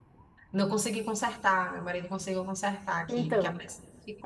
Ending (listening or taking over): taking over